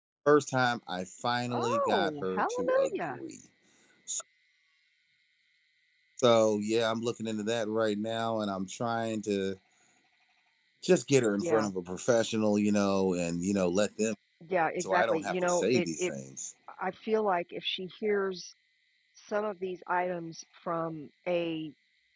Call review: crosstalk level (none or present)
present